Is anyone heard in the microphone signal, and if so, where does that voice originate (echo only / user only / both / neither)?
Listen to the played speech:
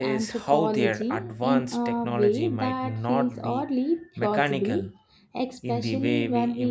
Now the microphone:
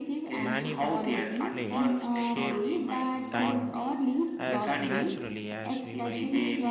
both